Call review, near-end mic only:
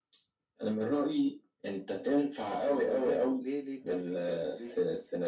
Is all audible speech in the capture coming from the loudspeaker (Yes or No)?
Yes